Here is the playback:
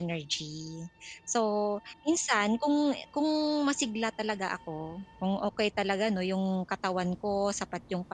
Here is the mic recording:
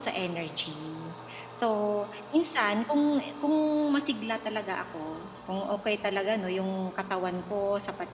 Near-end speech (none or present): none